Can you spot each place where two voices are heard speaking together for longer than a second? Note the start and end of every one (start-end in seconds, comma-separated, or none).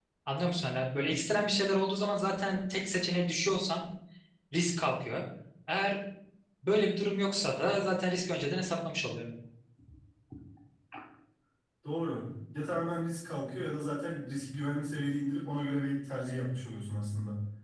none